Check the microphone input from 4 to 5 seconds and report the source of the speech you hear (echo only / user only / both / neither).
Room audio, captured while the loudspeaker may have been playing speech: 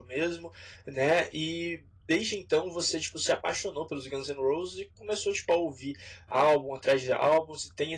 user only